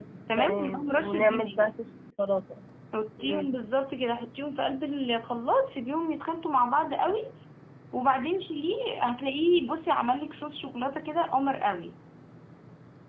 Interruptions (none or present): present